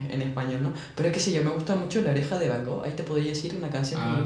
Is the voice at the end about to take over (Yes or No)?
No